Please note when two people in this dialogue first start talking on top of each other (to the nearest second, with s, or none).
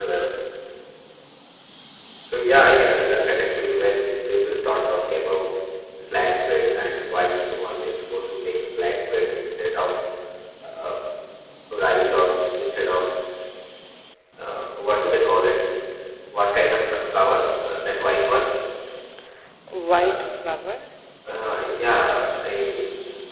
2 s